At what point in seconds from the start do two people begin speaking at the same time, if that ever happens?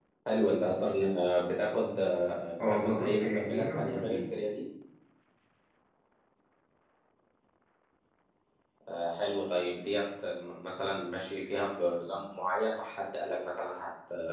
2.6 s

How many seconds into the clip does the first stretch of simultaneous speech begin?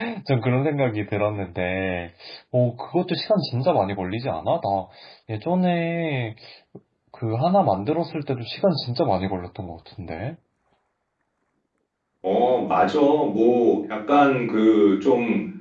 none

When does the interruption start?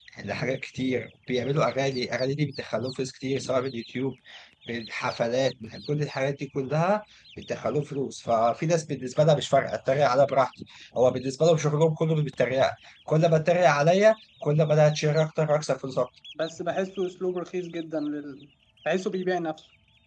none

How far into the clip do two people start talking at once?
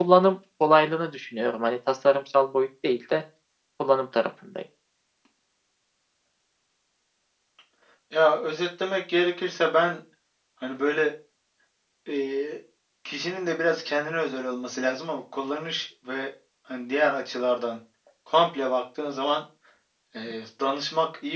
none

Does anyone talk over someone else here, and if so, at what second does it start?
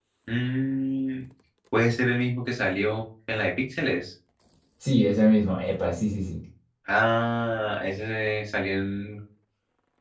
none

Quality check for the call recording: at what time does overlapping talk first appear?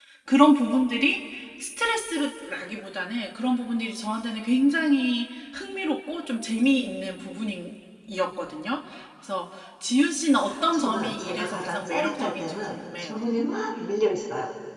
10.5 s

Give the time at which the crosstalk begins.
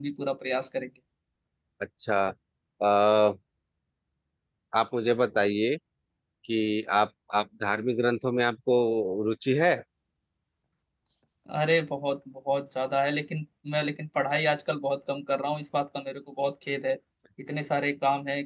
none

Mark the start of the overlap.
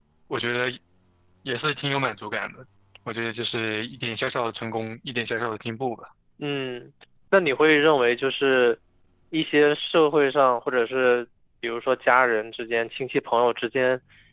none

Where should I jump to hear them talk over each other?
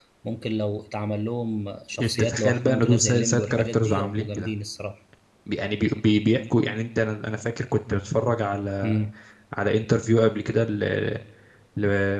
2.0 s

